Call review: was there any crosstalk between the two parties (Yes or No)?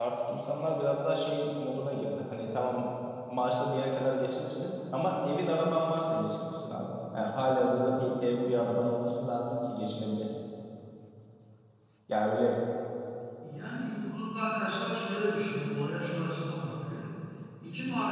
No